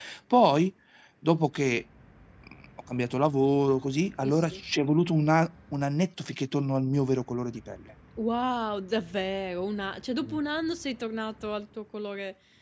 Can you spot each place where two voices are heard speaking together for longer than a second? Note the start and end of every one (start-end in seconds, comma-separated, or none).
none